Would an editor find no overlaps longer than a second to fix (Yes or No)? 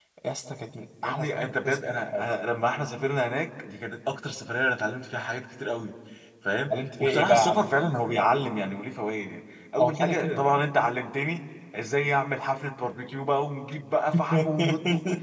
No